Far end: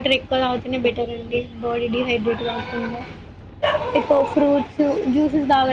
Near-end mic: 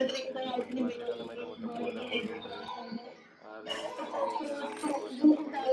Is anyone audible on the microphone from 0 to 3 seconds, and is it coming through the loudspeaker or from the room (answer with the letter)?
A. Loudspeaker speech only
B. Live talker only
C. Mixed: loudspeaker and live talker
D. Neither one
C